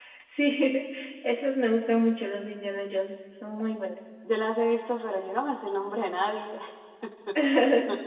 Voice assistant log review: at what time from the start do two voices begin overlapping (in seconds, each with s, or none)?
none